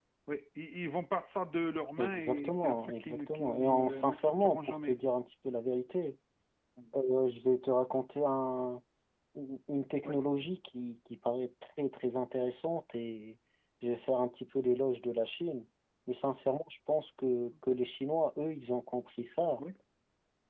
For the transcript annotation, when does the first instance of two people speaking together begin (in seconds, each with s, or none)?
2.0 s